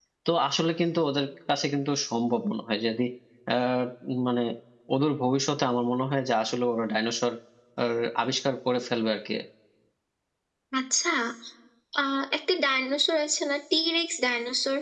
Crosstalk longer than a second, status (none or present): none